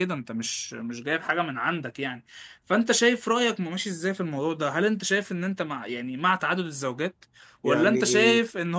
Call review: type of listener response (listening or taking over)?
listening